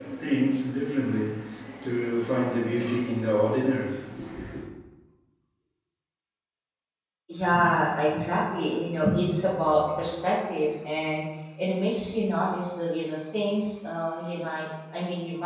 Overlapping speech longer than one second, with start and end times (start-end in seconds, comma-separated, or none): none